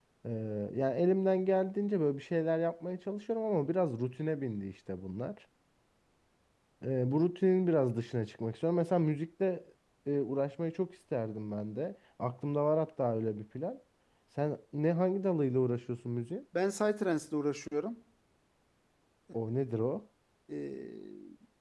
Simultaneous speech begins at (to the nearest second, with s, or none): none